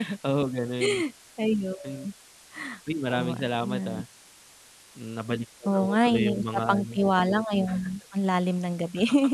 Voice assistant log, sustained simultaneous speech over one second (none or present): present